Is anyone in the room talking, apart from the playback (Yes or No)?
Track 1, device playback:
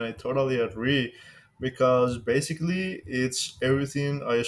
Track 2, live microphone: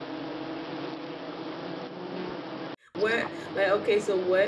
Yes